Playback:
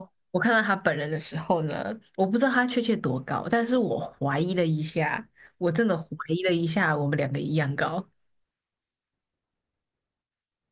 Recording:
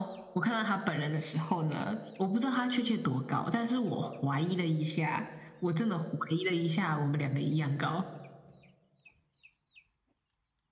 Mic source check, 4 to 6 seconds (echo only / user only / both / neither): echo only